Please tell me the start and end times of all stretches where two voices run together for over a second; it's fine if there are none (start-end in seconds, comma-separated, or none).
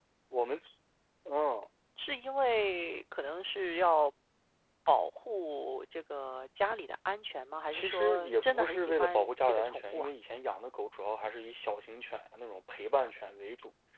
7.7-10.1